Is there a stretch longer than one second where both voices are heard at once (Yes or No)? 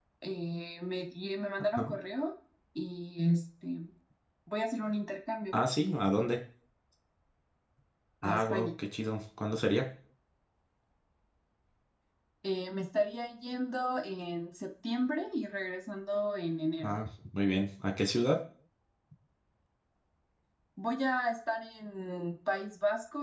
No